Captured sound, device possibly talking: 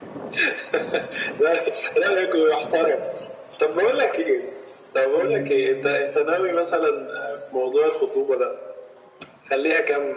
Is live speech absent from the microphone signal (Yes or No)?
No